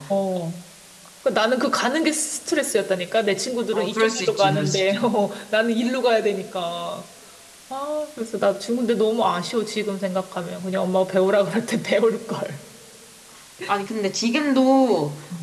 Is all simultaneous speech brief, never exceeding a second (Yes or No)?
No